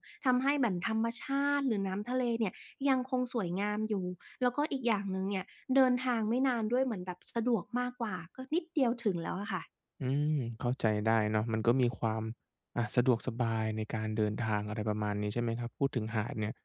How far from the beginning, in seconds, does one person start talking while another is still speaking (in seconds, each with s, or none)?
none